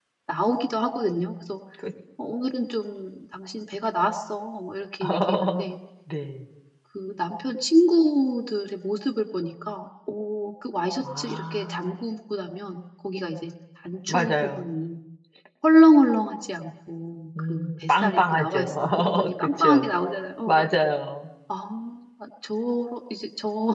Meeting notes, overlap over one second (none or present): present